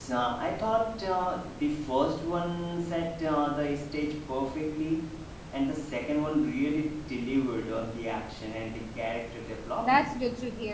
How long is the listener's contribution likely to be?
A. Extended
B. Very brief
A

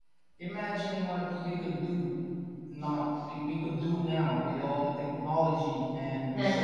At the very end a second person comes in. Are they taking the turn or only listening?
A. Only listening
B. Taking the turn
B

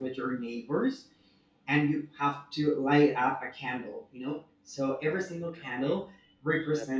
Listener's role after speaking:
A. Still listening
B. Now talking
A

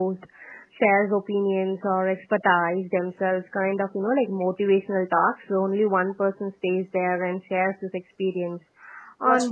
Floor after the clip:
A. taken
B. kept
B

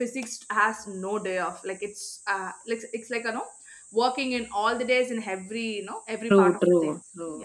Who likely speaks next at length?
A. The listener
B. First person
A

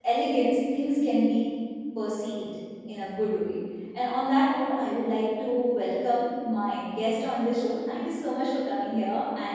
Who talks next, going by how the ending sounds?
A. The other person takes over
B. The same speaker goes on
A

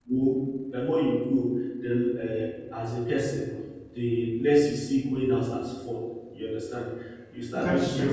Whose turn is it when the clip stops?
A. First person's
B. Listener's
A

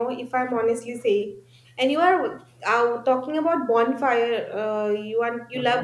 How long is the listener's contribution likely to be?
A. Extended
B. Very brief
B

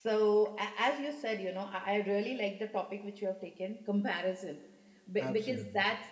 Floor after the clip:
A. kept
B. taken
A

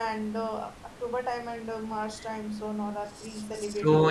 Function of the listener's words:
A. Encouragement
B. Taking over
B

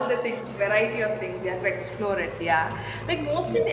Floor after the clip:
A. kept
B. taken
A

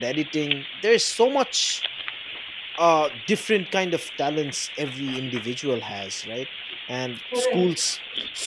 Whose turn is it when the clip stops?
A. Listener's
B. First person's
B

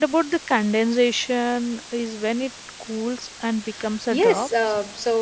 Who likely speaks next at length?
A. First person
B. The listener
B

